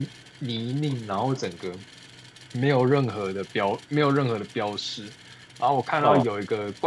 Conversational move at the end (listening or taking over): listening